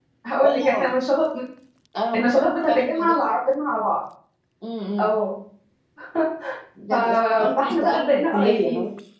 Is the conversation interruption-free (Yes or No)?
No